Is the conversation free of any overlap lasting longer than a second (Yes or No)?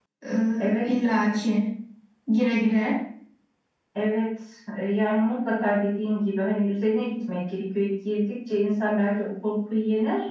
Yes